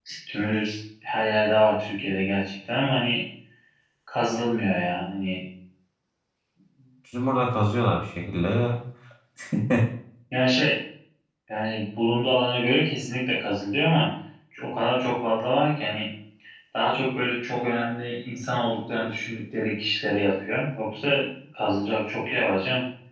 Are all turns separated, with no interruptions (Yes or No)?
Yes